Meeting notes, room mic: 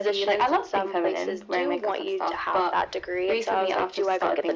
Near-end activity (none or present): none